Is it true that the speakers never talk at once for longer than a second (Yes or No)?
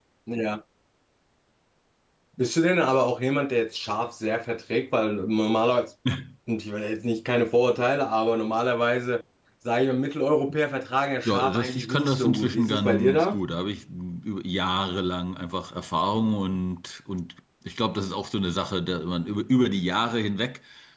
No